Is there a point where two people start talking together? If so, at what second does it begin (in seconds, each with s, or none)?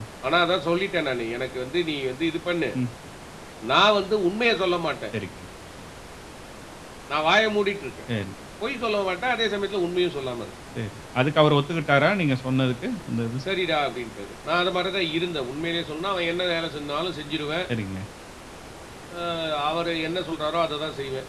none